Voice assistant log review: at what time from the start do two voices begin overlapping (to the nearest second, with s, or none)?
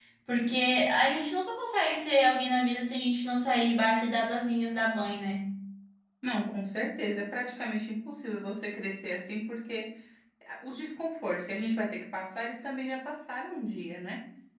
none